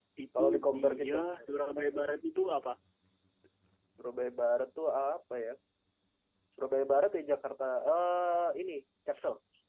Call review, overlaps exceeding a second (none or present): present